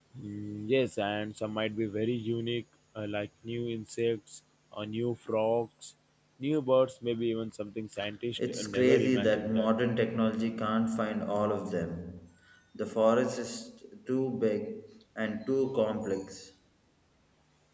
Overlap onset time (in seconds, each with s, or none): 8.4 s